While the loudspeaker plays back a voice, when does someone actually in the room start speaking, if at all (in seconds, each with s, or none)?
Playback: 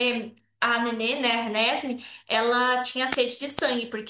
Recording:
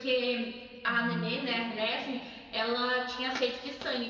0.9 s